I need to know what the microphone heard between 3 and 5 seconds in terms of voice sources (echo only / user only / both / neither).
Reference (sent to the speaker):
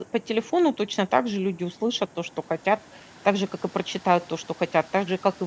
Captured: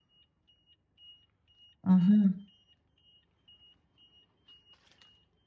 neither